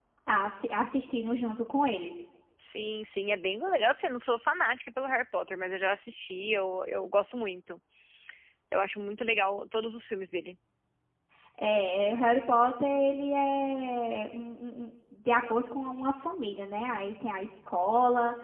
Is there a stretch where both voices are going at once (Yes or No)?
No